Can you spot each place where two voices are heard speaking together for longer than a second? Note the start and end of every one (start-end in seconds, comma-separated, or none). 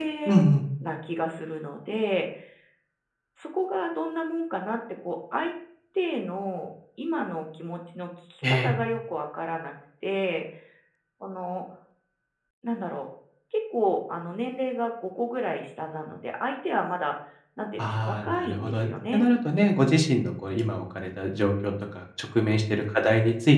17.8-19.3